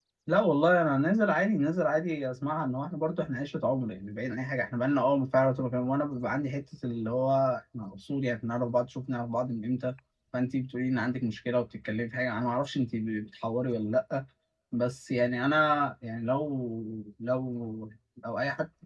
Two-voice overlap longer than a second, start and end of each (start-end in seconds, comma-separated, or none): none